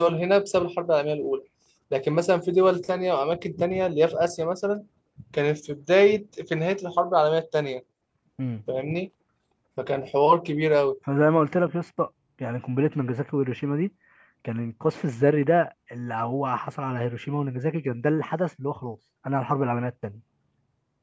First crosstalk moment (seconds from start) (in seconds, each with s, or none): none